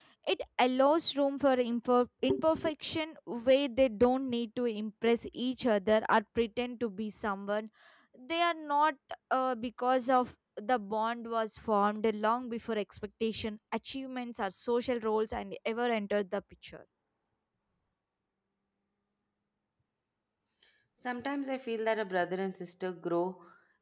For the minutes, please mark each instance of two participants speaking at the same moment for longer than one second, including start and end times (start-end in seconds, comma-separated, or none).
none